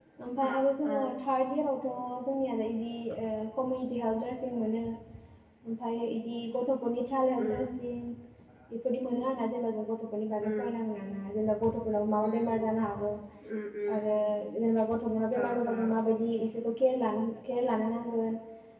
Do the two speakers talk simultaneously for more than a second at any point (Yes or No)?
No